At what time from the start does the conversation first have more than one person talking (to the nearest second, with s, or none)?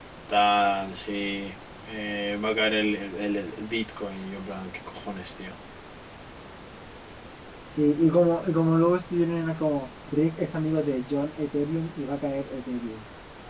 none